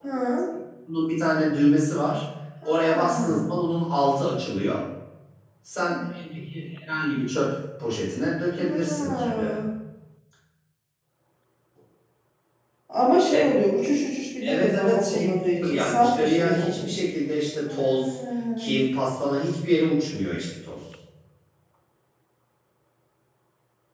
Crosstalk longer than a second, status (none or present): present